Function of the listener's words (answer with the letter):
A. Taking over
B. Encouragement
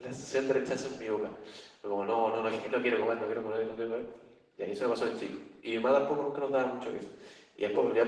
B